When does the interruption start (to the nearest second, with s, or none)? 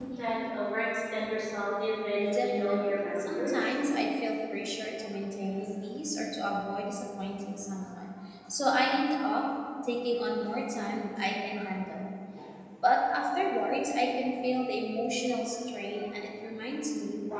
2 s